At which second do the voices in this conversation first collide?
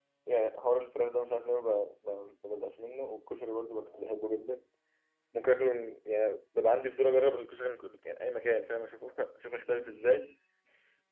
none

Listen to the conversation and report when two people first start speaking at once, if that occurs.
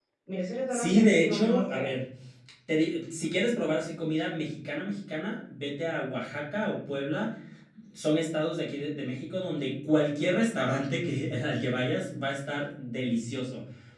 0.7 s

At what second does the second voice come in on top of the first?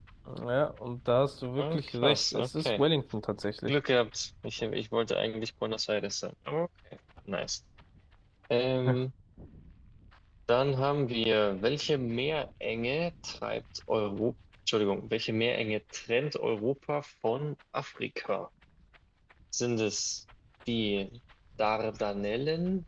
1.6 s

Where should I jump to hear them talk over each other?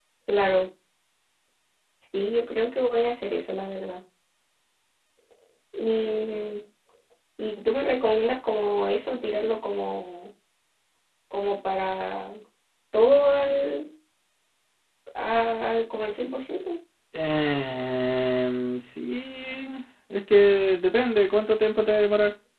none

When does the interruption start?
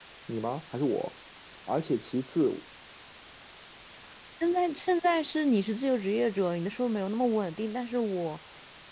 none

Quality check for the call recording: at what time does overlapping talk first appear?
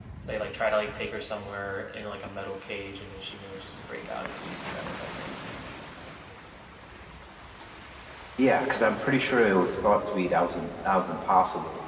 none

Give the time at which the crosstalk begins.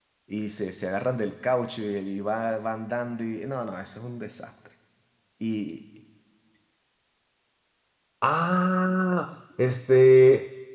none

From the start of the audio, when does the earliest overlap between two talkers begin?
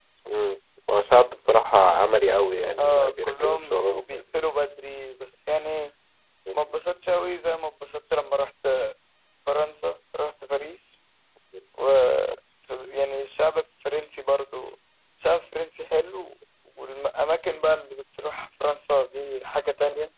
2.8 s

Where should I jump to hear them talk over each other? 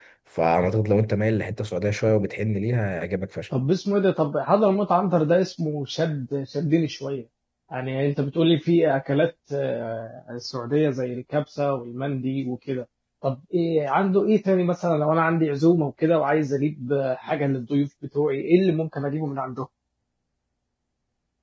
none

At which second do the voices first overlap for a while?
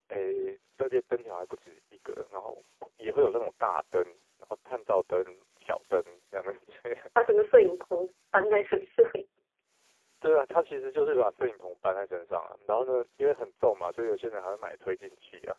none

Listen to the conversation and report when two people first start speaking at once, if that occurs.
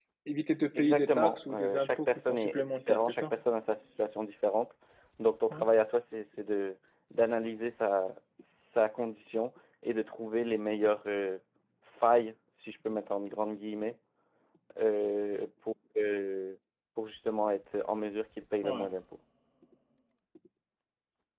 0.8 s

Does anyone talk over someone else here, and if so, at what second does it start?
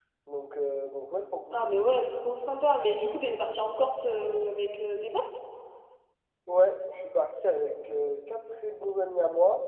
none

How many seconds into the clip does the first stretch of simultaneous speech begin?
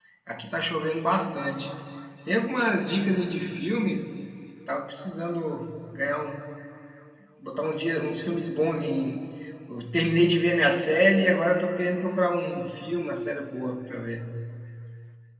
none

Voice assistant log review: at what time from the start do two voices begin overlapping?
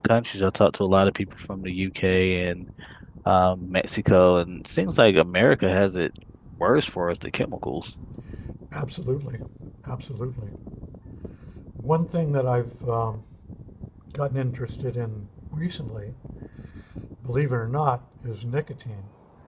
none

